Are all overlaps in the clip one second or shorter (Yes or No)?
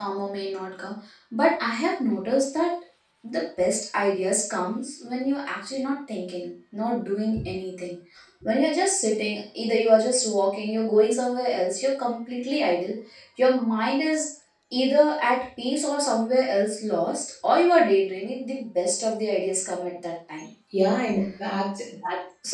Yes